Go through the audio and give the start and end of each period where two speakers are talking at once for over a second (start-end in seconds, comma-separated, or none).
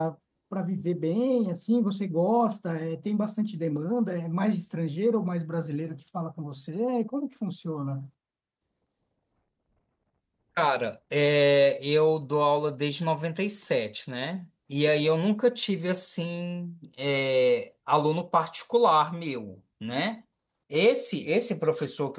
none